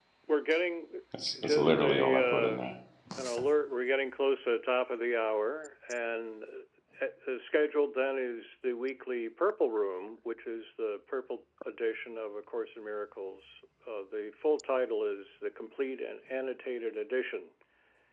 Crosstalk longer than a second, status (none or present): present